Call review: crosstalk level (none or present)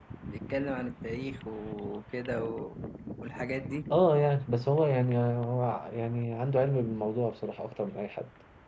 none